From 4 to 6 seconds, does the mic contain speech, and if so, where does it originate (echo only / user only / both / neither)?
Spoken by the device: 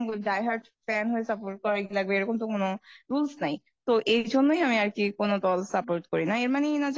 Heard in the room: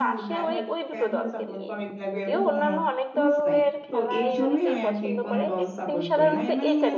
both